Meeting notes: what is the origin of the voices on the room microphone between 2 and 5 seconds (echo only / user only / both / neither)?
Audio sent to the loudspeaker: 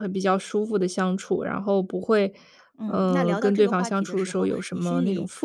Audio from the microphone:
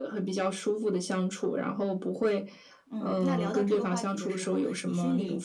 echo only